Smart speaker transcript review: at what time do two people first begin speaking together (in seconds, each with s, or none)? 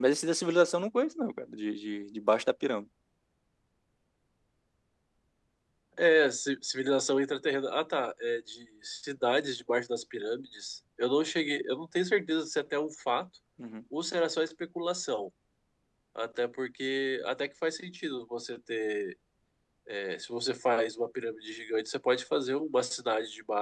none